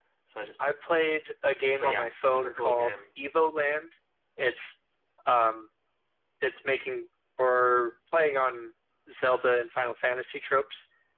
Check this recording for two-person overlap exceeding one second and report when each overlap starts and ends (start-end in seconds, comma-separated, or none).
1.8-3.0